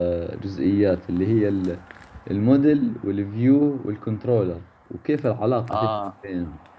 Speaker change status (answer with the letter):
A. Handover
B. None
B